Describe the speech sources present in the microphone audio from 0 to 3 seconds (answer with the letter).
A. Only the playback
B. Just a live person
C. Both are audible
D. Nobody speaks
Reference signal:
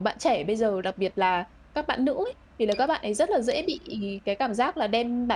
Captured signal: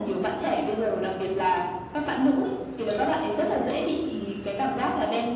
A